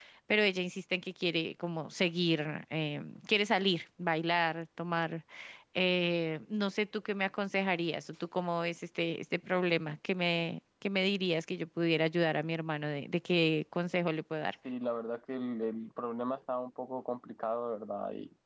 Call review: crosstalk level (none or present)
none